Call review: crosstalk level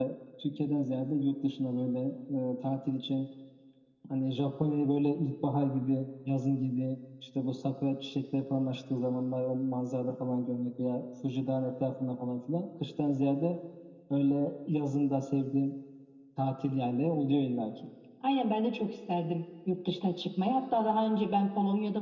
none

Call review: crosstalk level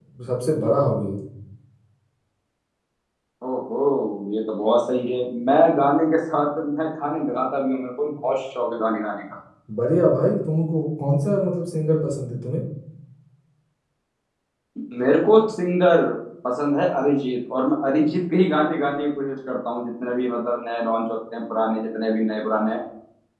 none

